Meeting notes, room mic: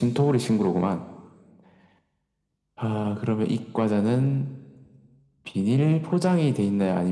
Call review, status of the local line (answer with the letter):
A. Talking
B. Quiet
B